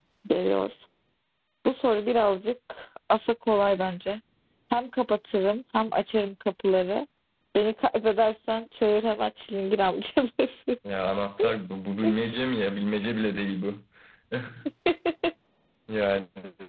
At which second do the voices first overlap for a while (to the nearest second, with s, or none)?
none